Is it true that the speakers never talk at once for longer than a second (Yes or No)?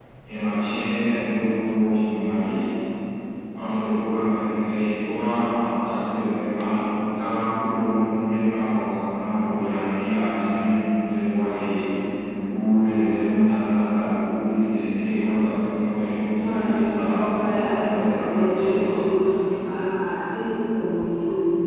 No